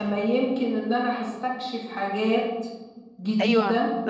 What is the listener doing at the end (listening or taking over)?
taking over